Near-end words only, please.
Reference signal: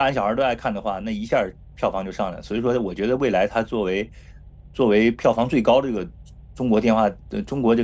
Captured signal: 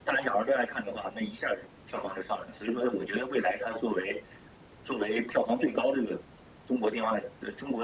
none

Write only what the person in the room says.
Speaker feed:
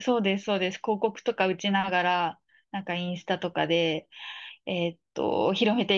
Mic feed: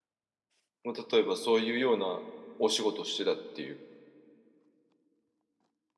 もう例えばそういうようなお仕事をしてたっていう。

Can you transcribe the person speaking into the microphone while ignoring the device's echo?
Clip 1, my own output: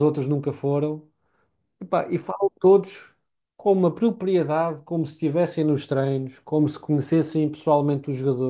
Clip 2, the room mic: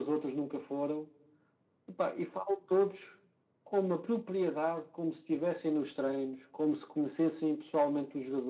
none

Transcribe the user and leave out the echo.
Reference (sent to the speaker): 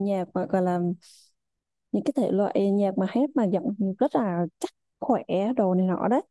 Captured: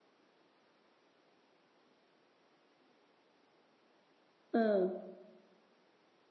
ừ

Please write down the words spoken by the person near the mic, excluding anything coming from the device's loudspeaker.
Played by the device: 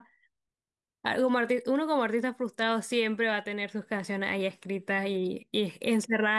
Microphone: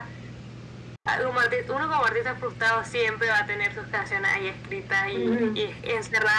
Ujú,

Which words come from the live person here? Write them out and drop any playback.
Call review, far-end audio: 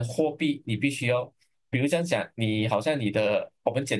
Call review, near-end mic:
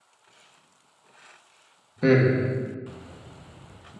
嗯

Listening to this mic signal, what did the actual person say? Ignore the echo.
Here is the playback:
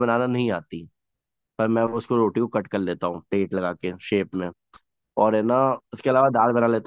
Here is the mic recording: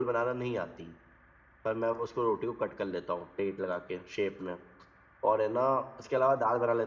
none

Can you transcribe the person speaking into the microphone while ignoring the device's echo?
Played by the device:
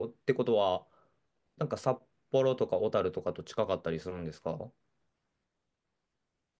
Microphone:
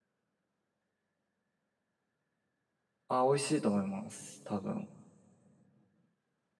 あ、美味しいと思います。多分。

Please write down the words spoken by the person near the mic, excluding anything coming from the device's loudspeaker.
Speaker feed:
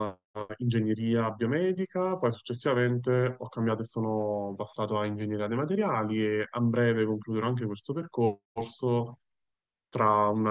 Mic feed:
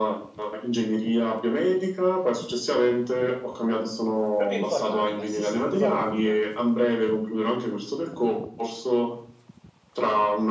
Proprio informatica, sì, sì, informatica.

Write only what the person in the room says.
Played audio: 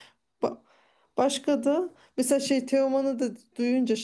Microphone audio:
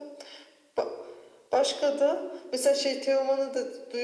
none

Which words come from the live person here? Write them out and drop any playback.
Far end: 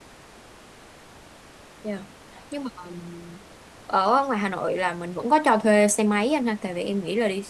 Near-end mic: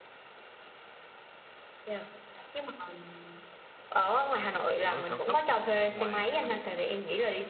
nó ở cao tốc ở bên ngoài Hà Nội

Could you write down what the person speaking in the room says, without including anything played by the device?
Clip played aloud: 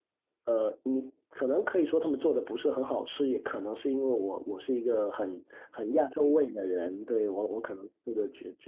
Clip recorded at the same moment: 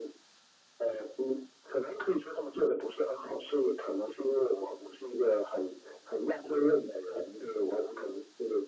none

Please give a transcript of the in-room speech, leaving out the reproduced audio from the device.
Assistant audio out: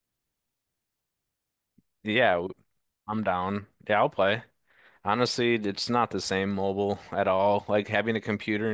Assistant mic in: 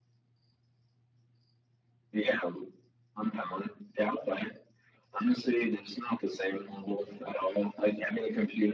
none

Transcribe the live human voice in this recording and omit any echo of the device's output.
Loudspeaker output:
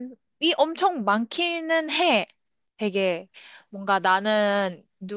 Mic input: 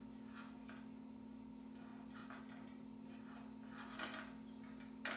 none

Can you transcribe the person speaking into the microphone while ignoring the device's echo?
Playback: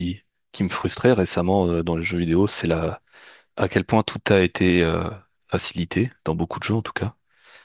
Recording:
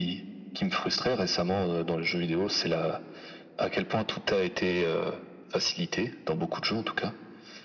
none

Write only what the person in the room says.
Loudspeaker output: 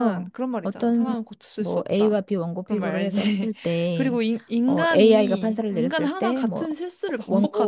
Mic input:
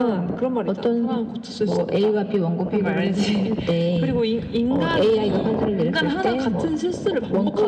none

